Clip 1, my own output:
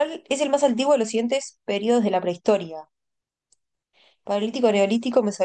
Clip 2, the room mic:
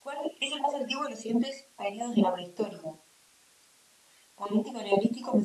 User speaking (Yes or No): No